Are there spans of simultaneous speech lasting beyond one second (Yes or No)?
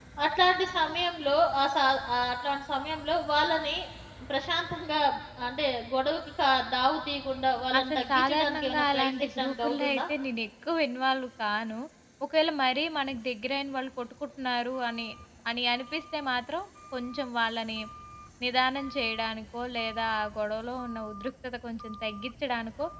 Yes